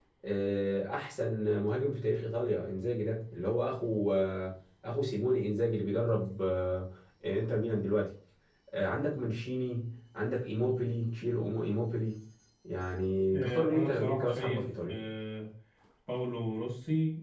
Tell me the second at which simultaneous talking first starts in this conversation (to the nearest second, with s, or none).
13 s